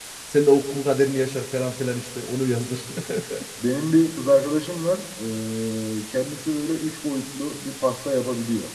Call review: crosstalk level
none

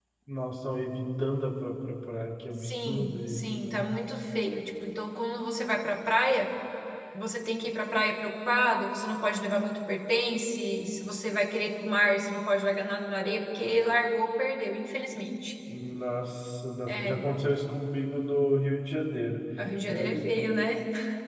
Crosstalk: present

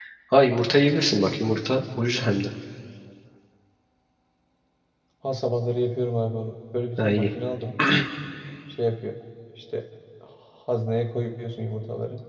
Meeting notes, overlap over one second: none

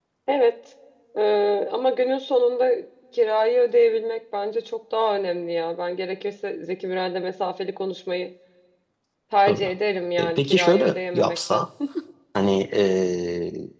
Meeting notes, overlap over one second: present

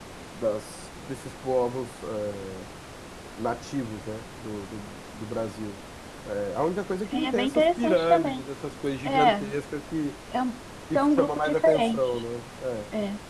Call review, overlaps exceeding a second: present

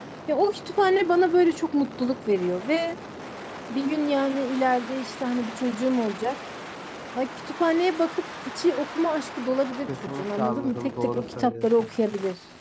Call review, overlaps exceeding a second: present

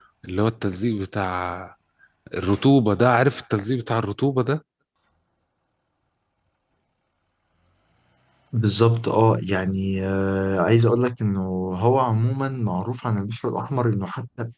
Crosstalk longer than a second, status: none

